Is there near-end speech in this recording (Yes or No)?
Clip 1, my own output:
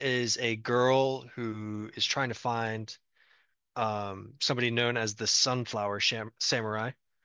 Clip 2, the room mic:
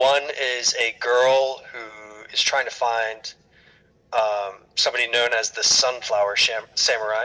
No